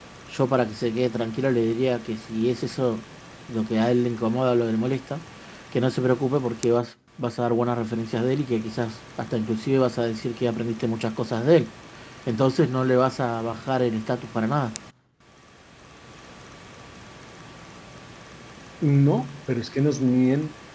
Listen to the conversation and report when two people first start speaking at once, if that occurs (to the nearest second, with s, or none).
none